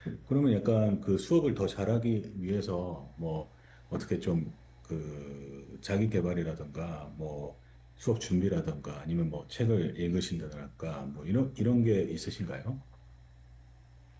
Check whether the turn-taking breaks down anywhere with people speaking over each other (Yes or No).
No